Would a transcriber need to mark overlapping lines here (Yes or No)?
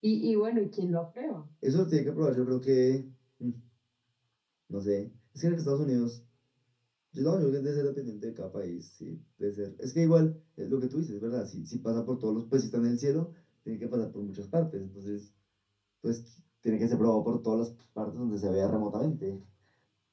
No